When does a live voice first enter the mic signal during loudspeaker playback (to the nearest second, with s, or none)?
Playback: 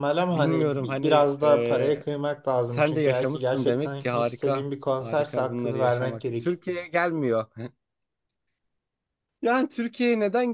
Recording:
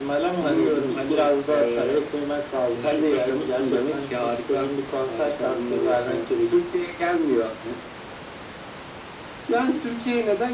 none